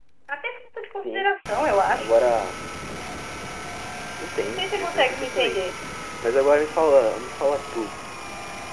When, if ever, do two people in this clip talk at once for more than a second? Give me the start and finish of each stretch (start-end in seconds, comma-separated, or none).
4.4-5.6